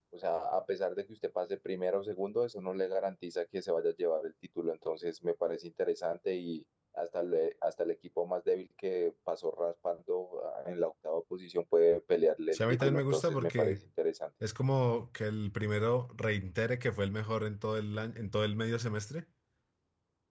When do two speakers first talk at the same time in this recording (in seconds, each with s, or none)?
12.5 s